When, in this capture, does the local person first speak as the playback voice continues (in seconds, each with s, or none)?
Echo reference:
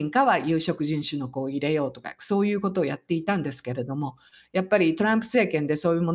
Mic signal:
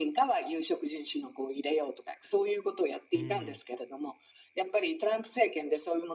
3.1 s